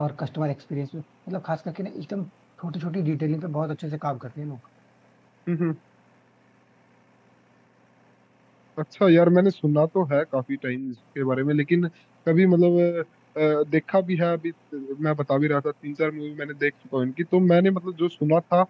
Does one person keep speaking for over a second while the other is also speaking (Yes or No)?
No